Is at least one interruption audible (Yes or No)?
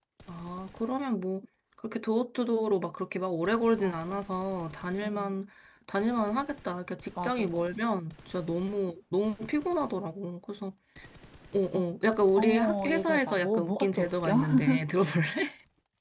Yes